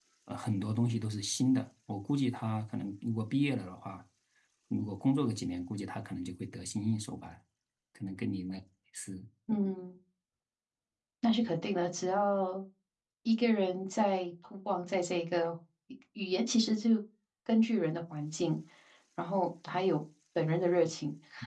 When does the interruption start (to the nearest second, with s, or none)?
none